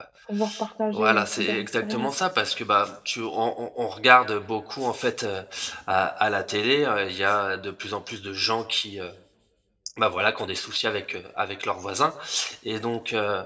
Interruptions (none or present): present